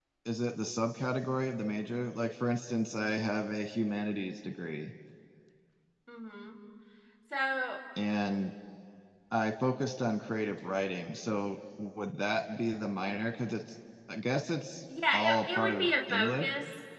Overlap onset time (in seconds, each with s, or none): 15.1 s